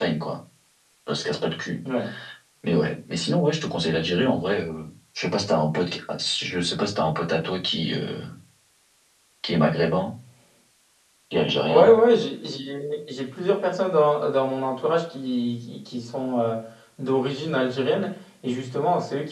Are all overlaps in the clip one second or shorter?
Yes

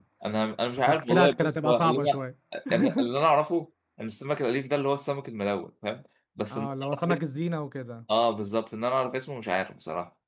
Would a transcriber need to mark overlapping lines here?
Yes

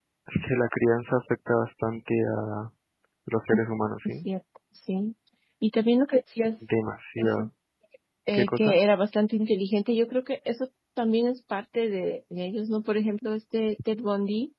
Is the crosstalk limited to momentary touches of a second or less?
Yes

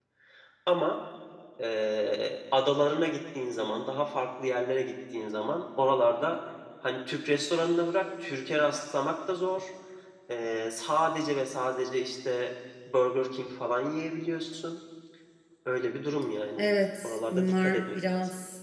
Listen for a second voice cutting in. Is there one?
Yes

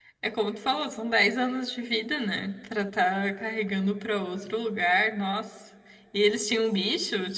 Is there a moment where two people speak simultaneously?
No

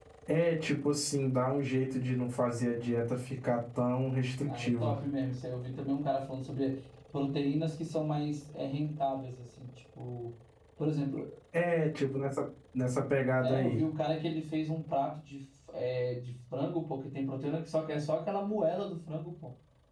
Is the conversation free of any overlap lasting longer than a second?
Yes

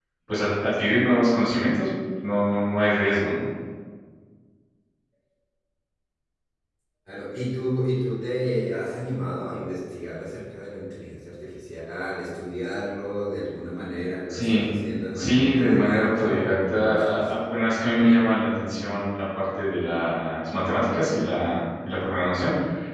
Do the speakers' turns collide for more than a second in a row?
Yes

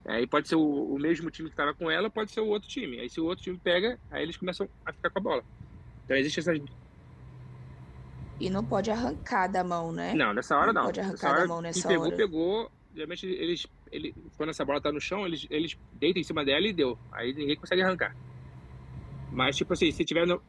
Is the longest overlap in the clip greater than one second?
Yes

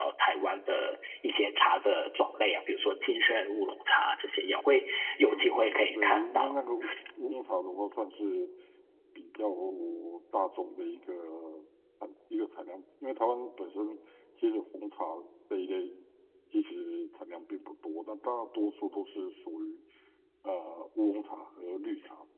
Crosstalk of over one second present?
Yes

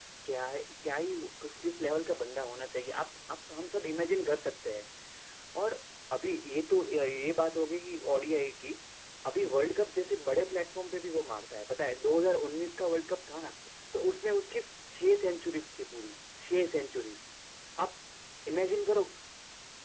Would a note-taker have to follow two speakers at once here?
No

